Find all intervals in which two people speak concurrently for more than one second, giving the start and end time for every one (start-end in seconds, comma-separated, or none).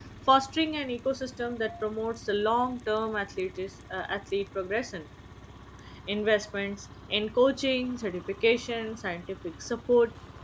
none